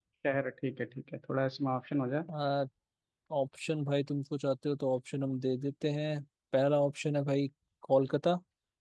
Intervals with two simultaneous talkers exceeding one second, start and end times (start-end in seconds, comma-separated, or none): none